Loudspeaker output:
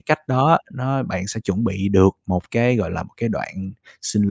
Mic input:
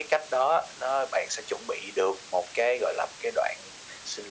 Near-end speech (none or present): none